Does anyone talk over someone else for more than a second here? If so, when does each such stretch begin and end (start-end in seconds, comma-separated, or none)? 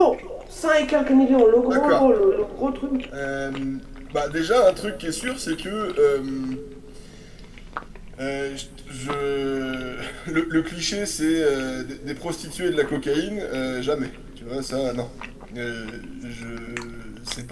none